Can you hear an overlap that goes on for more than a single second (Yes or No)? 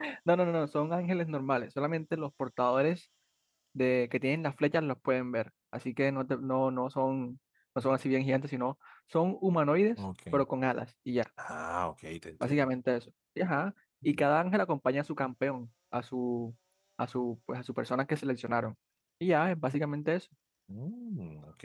No